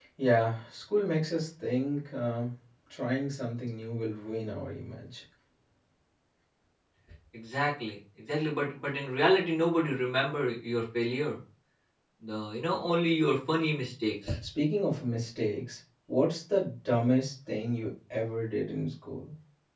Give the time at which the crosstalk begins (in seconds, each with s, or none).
none